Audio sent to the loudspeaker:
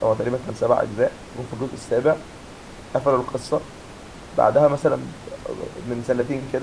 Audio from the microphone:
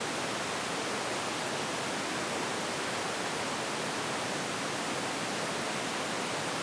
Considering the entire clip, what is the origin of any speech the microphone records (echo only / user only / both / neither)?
neither